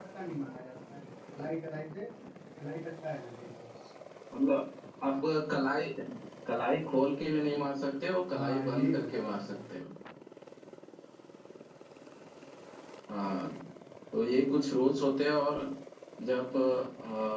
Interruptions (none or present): present